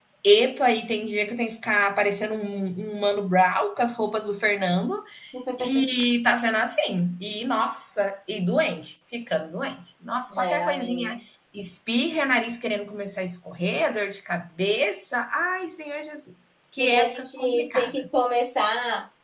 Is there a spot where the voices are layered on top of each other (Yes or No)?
Yes